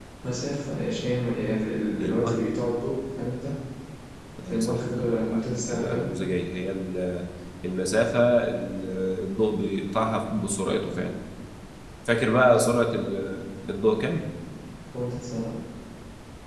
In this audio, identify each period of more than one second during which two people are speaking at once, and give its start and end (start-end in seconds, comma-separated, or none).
4.4-6.1